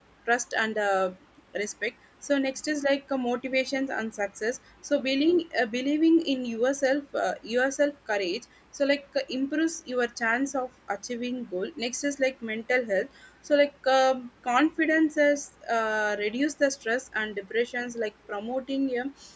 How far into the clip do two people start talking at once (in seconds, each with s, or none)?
none